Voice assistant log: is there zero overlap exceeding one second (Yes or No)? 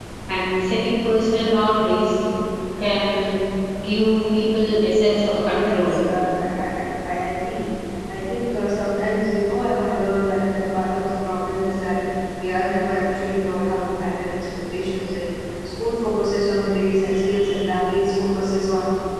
Yes